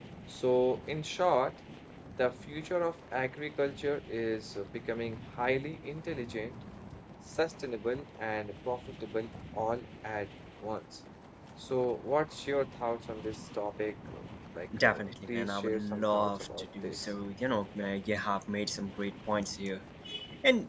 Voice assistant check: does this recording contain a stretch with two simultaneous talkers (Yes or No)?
Yes